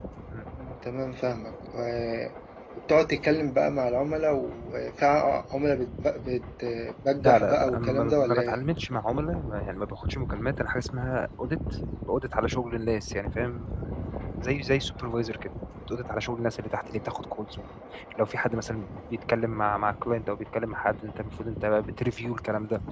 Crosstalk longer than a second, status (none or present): present